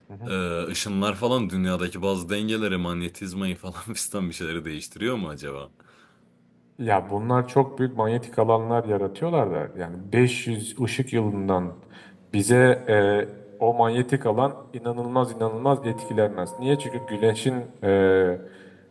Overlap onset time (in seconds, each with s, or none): none